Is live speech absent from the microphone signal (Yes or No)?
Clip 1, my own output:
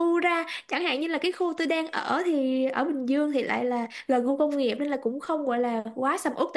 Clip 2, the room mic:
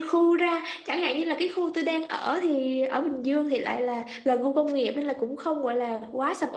Yes